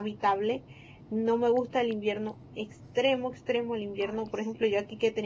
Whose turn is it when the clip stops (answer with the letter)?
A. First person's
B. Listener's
A